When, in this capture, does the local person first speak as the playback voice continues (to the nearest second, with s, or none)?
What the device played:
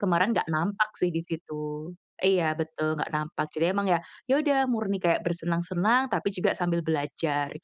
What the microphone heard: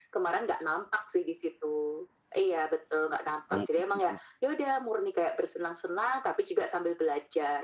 4 s